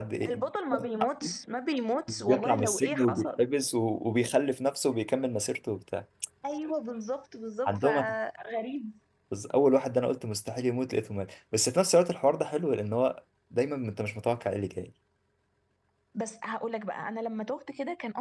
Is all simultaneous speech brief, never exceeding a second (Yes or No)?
No